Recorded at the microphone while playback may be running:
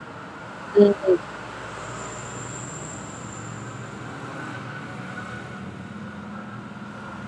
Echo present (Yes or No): No